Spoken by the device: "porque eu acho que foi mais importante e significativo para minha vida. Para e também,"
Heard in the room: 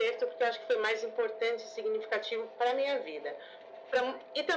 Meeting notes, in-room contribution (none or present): none